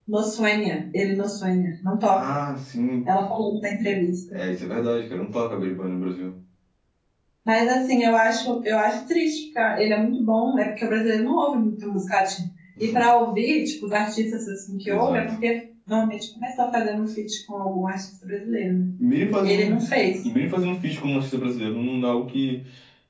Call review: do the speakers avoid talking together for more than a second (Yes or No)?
Yes